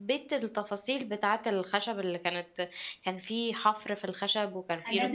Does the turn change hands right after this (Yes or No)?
Yes